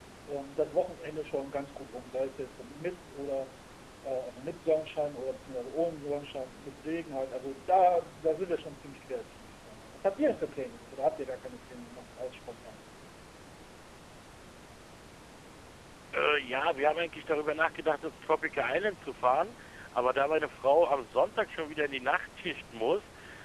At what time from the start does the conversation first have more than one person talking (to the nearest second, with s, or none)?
none